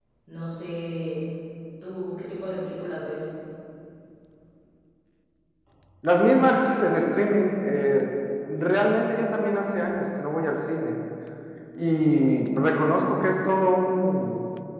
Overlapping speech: No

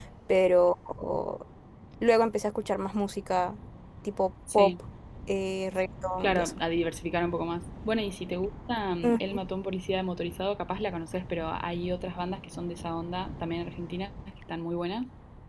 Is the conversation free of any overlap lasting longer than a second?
Yes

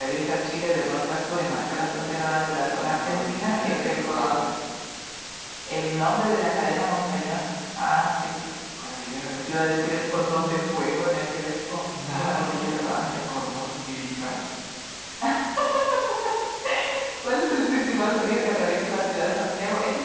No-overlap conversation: No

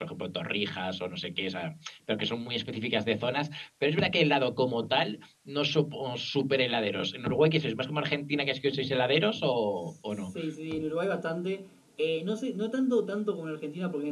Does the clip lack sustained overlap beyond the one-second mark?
Yes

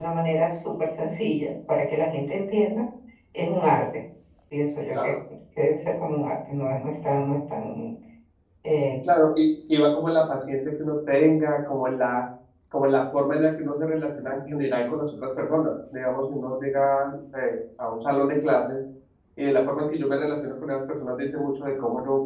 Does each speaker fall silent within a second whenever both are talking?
Yes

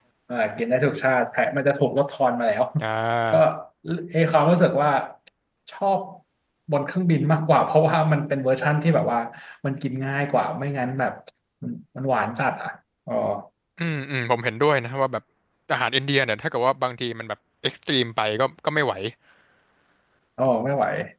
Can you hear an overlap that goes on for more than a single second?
No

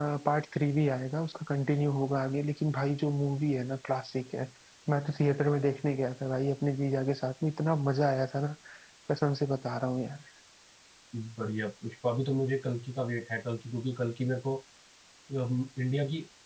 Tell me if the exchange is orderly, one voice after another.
Yes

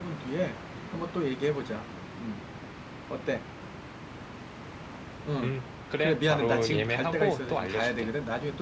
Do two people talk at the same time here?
Yes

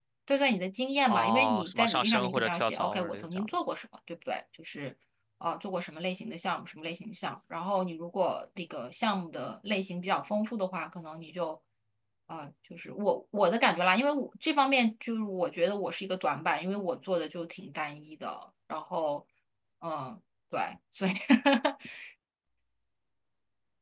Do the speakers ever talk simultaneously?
Yes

